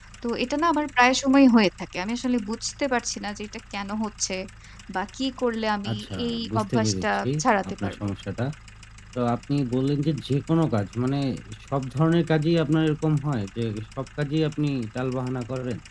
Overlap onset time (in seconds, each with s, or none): 5.9 s